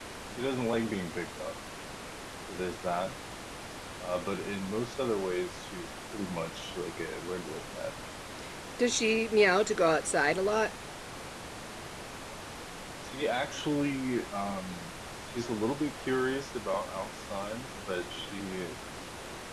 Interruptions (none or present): none